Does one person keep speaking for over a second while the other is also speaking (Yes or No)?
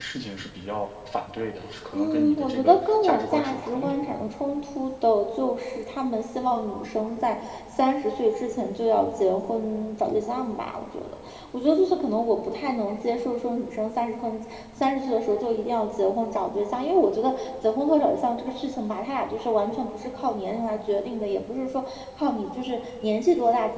Yes